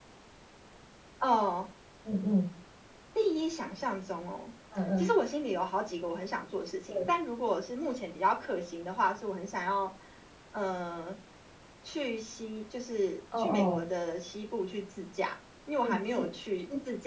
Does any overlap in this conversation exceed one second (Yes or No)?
No